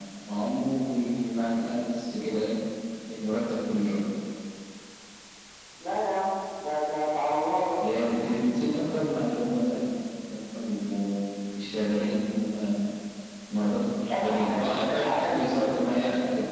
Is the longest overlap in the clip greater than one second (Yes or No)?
Yes